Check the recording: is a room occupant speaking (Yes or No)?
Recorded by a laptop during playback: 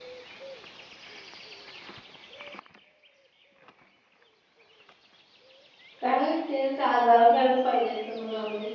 Yes